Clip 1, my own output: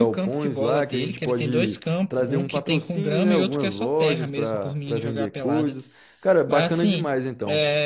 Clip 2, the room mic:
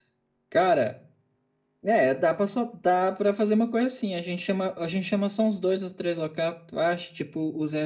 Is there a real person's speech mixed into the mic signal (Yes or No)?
Yes